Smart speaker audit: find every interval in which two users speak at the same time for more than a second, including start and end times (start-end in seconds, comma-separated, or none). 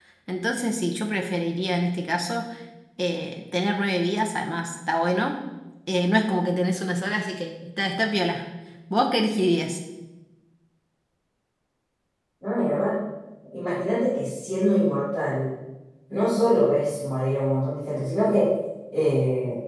none